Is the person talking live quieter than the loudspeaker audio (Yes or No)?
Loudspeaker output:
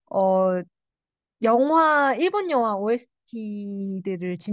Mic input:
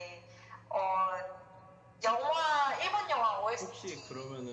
Yes